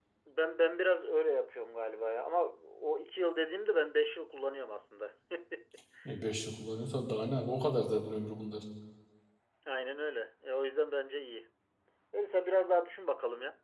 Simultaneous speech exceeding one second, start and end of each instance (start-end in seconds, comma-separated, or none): none